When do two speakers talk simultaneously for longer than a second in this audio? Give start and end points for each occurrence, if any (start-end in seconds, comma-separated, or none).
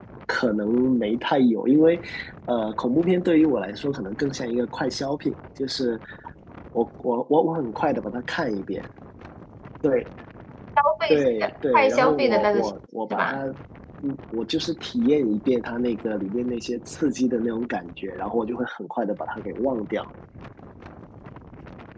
11.1-12.6